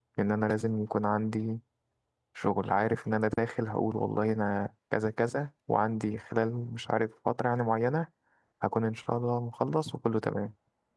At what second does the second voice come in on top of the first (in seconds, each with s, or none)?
none